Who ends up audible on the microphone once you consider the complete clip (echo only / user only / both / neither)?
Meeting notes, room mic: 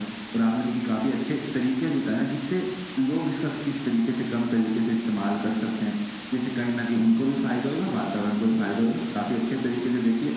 echo only